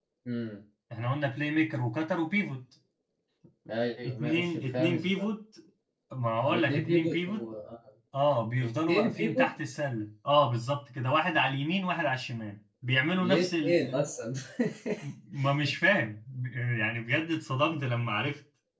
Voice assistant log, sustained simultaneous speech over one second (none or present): present